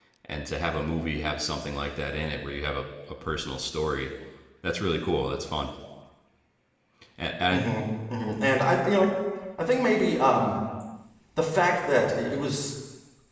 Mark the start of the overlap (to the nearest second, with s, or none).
none